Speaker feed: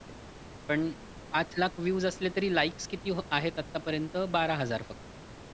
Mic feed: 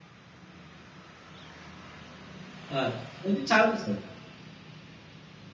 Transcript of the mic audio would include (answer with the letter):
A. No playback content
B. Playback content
A